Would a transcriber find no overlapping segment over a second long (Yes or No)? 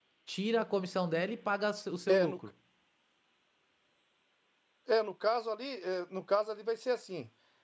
Yes